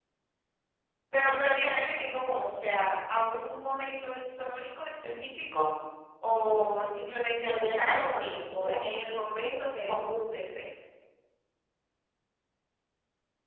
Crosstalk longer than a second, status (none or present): present